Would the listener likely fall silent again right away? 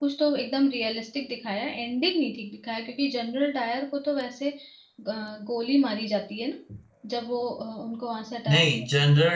No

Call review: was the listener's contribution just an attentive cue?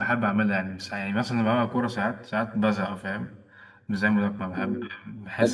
No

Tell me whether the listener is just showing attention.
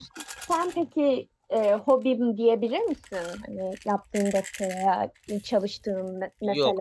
No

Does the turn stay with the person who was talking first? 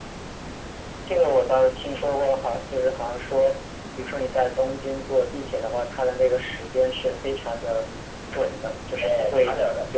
No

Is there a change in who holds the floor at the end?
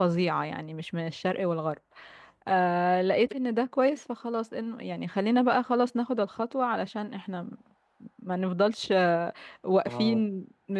No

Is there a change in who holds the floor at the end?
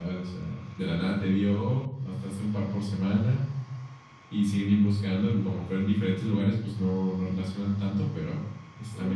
Yes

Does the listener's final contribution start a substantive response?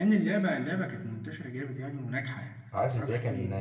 Yes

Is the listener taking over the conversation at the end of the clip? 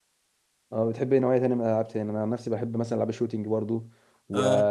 No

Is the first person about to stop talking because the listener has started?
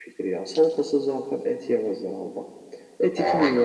No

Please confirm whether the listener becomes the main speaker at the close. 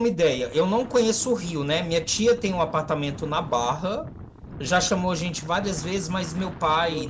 No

